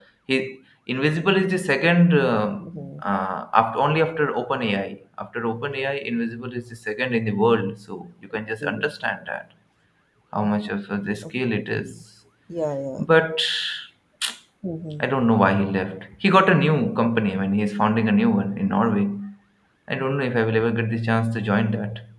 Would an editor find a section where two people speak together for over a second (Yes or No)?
No